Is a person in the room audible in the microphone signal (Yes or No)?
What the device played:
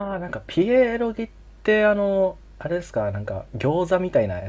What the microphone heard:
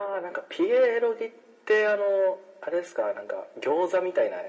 No